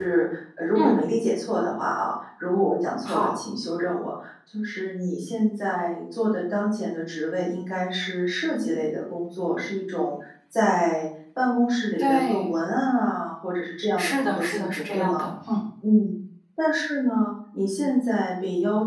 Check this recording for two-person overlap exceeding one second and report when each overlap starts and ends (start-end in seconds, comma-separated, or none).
14.0-15.3